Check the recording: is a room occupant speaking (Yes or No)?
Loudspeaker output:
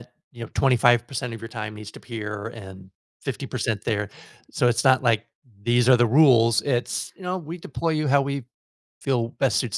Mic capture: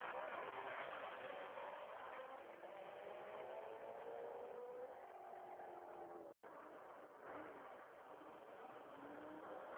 No